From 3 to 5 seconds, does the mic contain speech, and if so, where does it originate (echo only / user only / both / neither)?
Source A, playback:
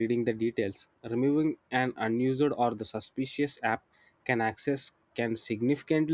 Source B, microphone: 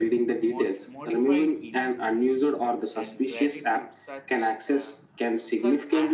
both